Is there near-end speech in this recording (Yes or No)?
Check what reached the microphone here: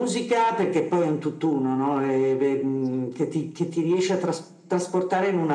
No